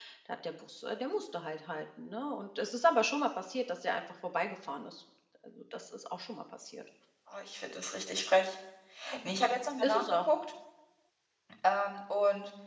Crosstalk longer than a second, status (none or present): none